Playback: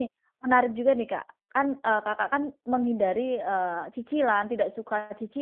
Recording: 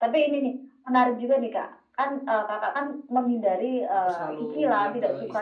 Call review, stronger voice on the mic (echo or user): echo